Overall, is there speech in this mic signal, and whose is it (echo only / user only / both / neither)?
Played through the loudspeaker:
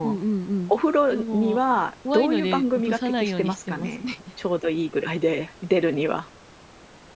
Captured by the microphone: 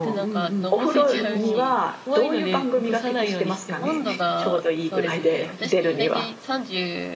both